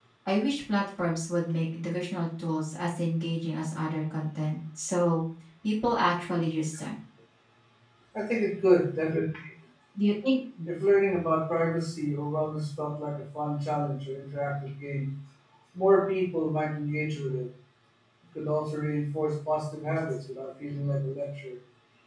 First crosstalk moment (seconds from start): none

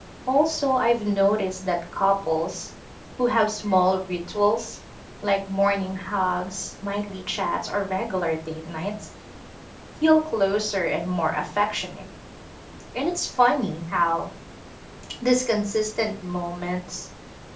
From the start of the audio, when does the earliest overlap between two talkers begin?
none

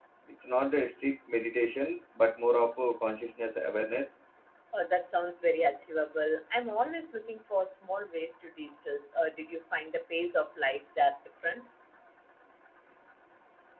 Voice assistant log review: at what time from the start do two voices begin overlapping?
none

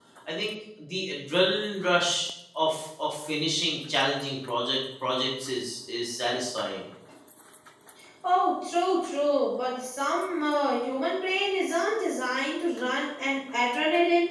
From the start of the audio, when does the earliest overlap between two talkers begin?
none

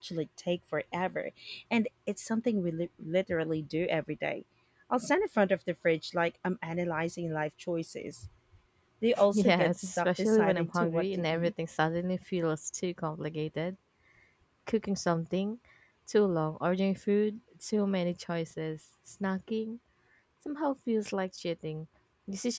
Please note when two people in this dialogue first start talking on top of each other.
9.3 s

